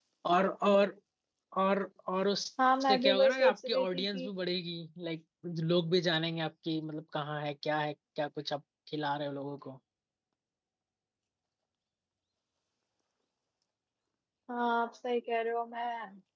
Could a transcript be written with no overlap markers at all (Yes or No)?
No